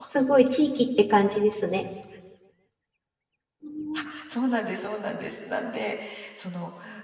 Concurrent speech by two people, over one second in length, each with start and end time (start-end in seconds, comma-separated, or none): none